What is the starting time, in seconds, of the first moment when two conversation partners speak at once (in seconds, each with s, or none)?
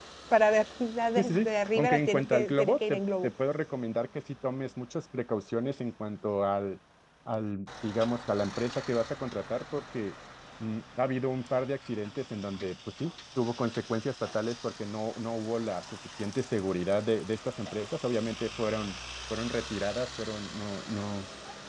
1.1 s